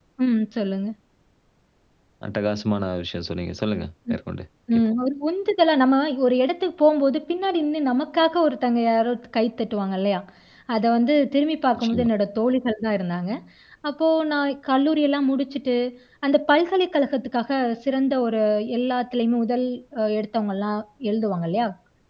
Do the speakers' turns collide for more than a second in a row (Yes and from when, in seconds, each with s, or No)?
No